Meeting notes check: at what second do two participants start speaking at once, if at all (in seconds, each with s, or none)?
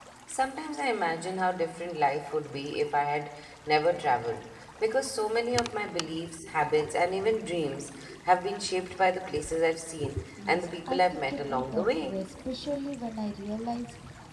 10.4 s